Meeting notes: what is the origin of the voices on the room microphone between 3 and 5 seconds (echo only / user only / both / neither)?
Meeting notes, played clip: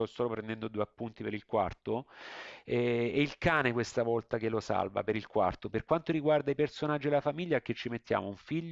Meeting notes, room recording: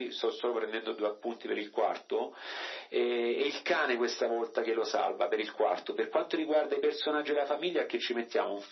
echo only